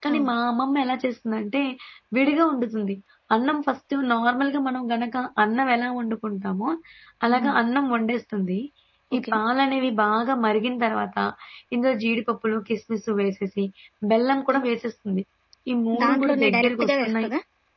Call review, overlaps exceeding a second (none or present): present